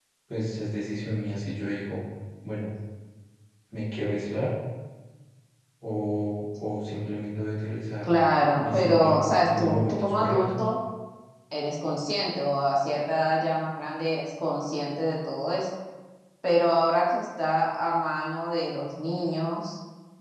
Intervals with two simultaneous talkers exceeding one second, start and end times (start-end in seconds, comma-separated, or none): 8.6-10.6